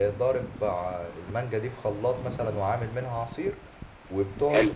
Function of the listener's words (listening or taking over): listening